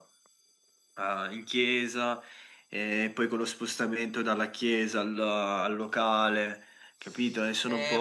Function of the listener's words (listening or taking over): taking over